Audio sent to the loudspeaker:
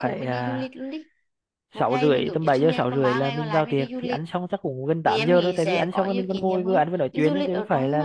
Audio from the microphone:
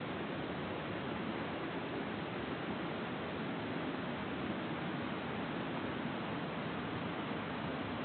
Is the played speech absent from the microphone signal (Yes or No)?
Yes